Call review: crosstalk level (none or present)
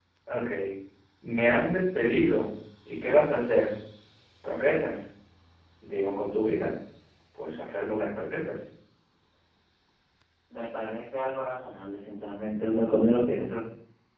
none